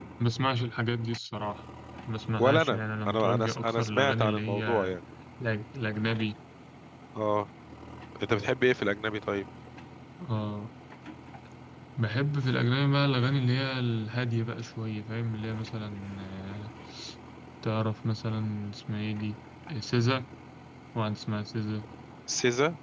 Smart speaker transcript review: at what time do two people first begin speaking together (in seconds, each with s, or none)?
2.4 s